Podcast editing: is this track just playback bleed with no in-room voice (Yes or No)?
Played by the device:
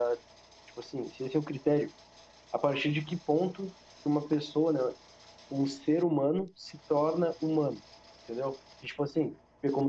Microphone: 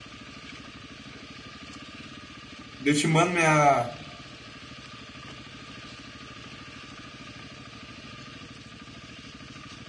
No